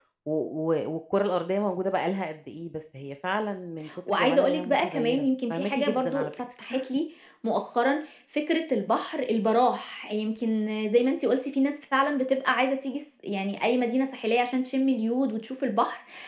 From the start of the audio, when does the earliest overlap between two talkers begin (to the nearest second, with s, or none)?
4 s